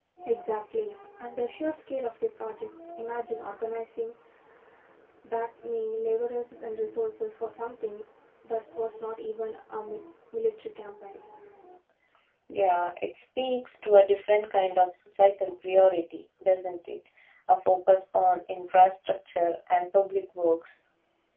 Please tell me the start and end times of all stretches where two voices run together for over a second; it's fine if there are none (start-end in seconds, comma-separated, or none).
none